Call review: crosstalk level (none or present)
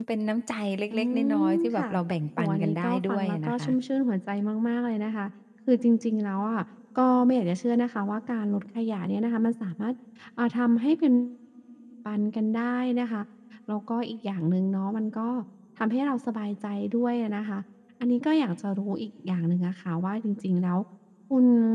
present